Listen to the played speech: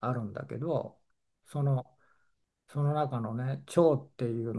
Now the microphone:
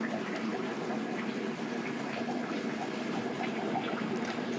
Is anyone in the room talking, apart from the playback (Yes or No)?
No